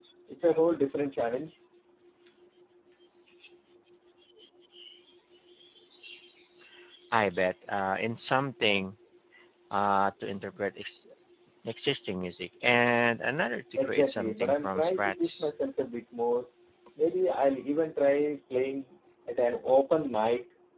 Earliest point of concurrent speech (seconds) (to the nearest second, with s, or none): 14 s